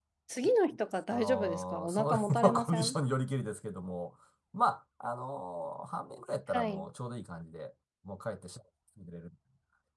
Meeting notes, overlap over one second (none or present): present